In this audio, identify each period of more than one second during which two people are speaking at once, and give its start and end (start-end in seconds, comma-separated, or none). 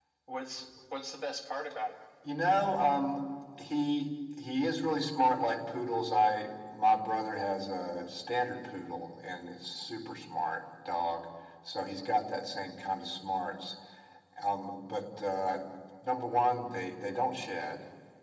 none